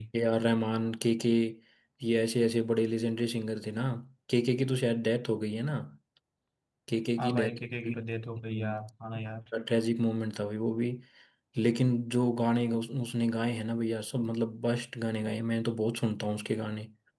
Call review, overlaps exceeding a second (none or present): none